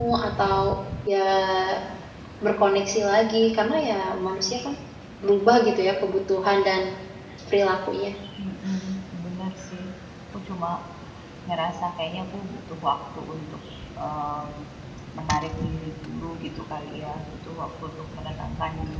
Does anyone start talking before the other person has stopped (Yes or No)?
No